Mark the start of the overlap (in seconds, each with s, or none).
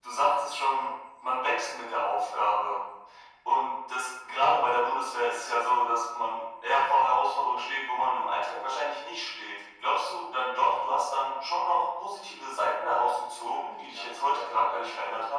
13.3 s